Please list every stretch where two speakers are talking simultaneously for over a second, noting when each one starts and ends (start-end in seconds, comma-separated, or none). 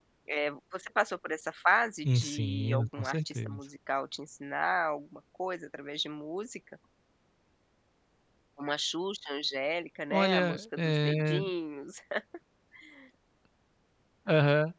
2.0-3.6, 10.1-11.4